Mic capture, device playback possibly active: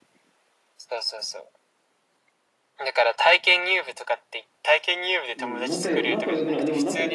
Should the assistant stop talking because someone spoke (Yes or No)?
Yes